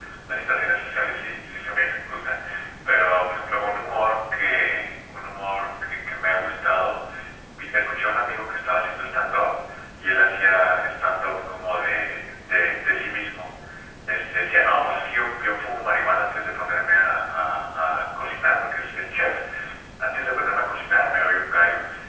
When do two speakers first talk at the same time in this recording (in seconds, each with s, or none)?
none